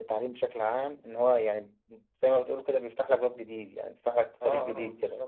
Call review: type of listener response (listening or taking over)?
taking over